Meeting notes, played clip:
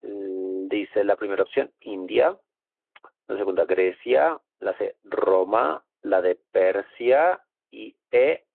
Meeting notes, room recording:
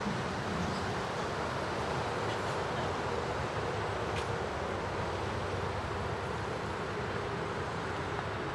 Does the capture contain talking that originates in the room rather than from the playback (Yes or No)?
No